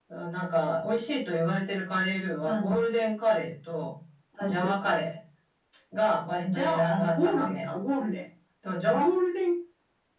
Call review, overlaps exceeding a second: present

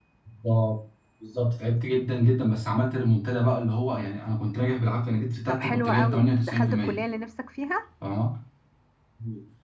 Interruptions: present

